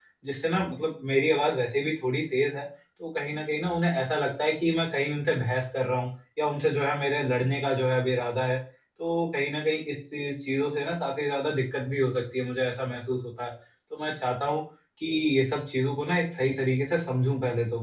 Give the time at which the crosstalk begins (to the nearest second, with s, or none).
none